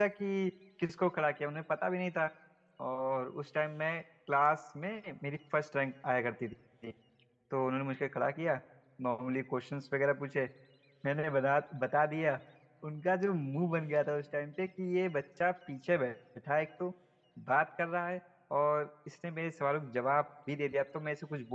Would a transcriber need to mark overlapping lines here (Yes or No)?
No